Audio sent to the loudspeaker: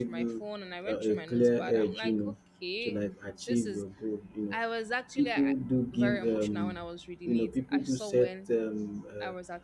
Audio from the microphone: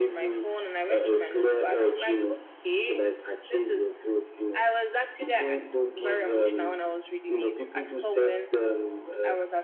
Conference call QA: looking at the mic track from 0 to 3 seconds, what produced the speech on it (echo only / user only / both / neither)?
echo only